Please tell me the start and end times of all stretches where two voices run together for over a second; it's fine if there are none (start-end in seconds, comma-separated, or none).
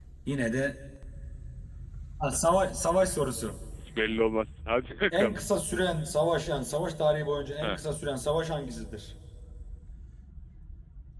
none